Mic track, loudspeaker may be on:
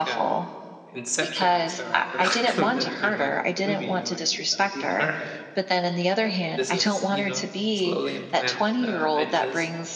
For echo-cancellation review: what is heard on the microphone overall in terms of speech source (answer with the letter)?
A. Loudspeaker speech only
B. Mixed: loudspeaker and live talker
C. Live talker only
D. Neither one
B